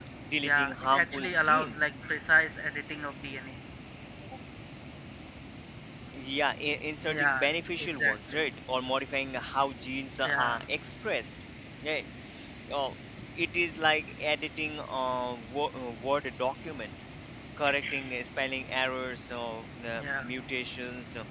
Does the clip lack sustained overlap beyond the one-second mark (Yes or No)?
No